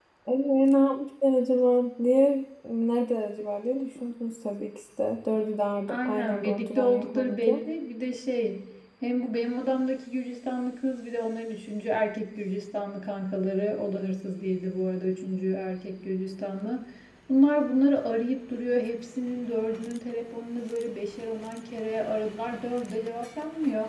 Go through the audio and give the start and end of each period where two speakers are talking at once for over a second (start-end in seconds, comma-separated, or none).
5.9-7.6